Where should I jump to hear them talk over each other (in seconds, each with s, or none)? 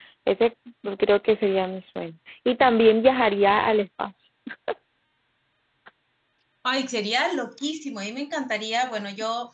none